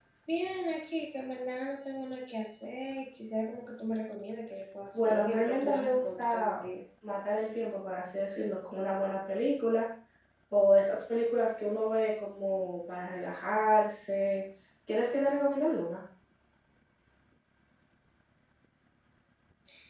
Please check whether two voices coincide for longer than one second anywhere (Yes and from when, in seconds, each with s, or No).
Yes, from 4.9 s